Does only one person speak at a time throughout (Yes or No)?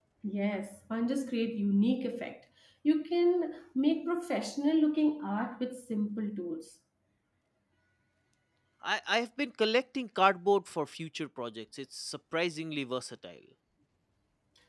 Yes